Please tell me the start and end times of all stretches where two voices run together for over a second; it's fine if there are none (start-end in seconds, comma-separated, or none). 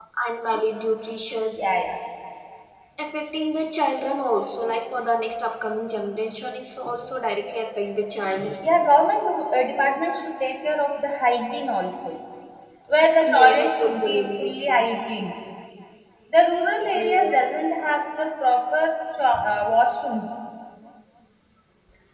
13.3-14.8